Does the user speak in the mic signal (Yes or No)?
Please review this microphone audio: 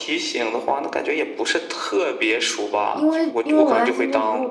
Yes